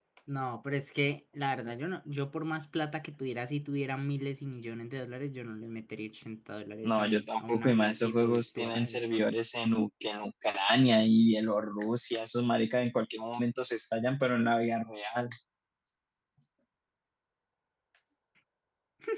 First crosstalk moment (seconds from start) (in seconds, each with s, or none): 6.8 s